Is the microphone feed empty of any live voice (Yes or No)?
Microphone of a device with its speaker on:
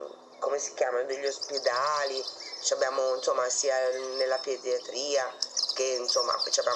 Yes